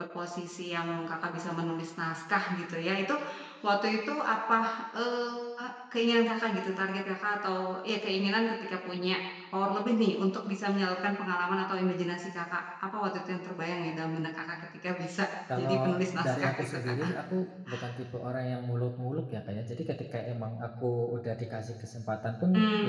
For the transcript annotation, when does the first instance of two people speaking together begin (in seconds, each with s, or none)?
15.6 s